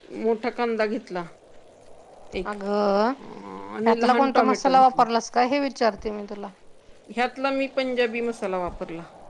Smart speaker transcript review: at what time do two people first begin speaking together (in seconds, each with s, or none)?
3.8 s